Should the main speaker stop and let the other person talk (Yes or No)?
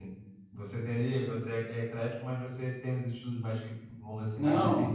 Yes